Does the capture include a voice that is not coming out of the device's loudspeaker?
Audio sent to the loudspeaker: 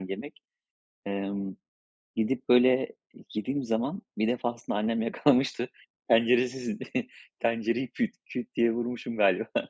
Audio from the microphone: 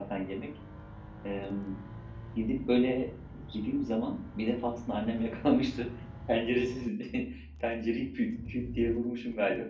No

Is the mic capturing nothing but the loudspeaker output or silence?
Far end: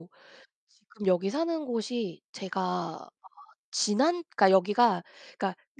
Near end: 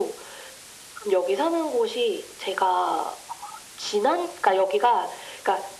Yes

